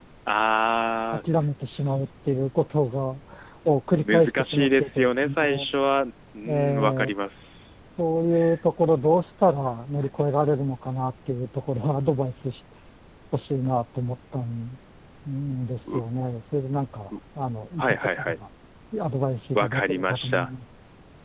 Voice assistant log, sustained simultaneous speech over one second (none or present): present